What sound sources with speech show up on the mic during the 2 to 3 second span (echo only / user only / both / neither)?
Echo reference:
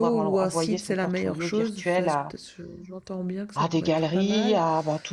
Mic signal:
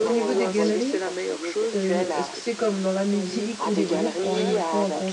both